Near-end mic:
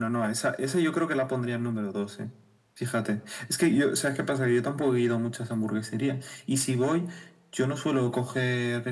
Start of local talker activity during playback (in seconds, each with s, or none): none